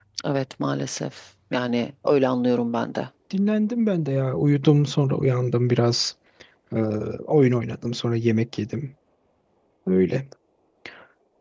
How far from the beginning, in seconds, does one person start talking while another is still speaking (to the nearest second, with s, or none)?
none